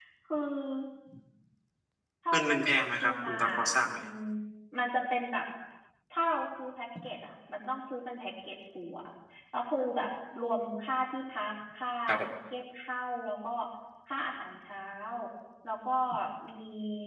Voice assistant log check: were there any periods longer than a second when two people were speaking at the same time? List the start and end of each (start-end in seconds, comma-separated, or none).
2.3-4.0